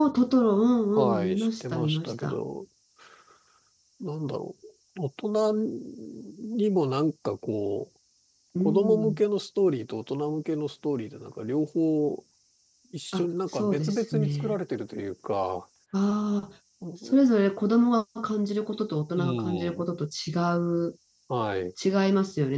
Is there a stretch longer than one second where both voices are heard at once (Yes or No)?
Yes